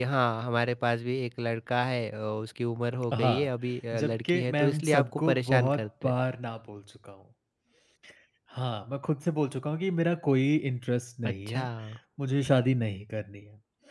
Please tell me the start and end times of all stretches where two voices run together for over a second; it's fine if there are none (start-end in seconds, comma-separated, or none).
3.9-6.1